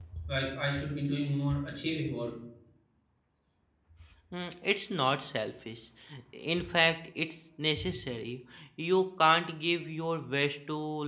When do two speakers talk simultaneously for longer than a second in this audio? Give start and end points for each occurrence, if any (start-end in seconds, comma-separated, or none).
none